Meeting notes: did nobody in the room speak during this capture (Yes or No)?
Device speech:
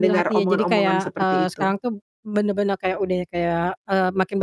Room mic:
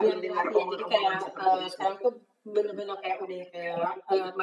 Yes